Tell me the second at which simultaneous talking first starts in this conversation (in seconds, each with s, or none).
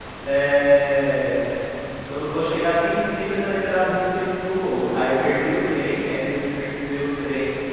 none